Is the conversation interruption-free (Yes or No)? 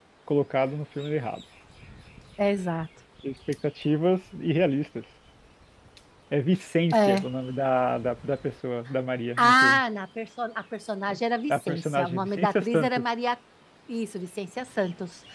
No